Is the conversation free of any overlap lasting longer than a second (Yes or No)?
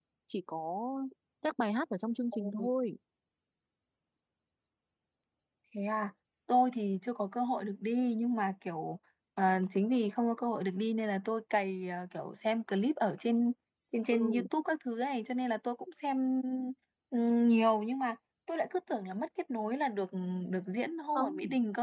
Yes